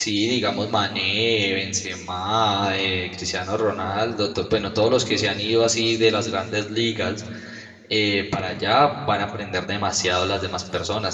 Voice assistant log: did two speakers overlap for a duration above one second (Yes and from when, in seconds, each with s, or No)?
No